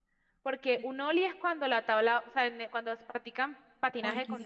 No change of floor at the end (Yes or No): Yes